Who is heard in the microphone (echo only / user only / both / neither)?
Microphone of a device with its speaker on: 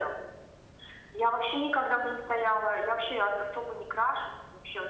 echo only